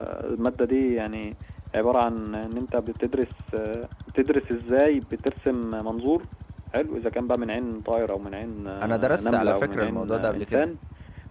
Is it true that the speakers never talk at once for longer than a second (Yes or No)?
No